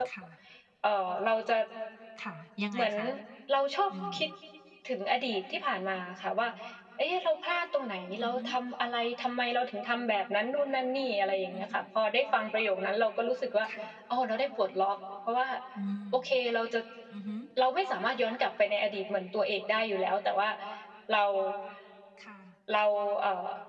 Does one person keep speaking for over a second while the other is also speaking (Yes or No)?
No